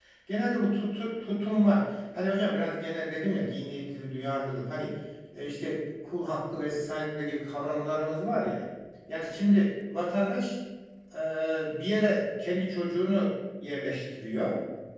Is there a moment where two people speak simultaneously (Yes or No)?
No